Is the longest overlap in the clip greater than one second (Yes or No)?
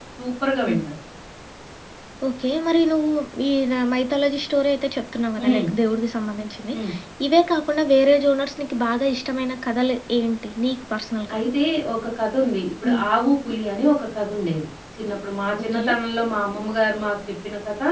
No